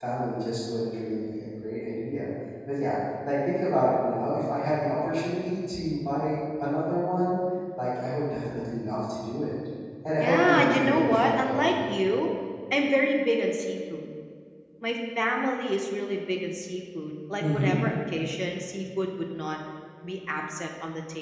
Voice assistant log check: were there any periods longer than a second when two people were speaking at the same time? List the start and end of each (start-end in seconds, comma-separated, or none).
10.2-11.9